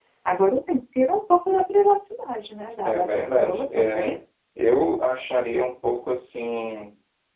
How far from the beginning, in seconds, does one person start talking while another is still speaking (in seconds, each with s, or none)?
2.8 s